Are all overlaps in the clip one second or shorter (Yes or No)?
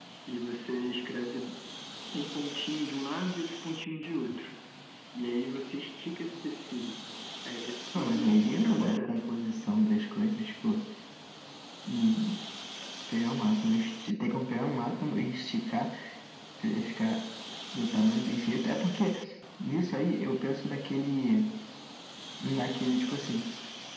No